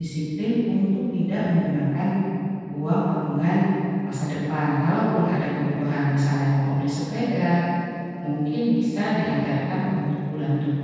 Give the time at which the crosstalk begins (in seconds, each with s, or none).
none